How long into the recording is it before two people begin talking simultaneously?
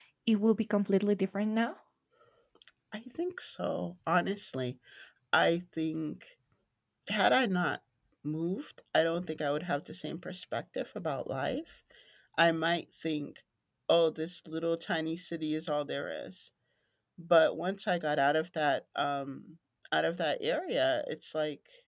none

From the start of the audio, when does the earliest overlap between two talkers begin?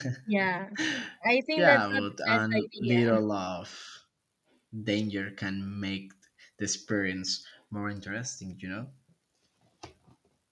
1.6 s

